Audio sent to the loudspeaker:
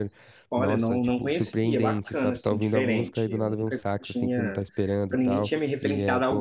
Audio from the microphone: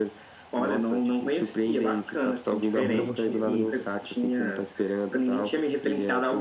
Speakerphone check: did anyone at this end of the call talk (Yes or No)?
Yes